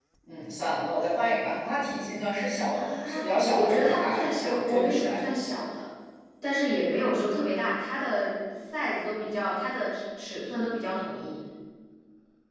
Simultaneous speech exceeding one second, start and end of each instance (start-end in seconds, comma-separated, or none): 2.7-5.3